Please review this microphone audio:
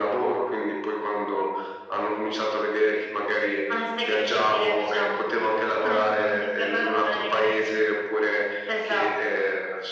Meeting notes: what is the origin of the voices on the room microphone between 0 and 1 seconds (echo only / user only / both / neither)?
echo only